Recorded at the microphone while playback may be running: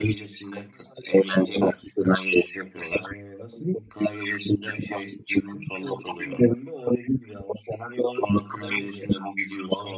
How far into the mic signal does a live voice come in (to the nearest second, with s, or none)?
none